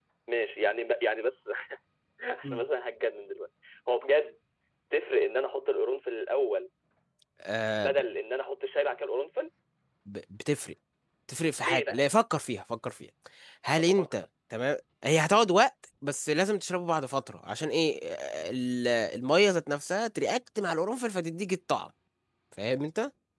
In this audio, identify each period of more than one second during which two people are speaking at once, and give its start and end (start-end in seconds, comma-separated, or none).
none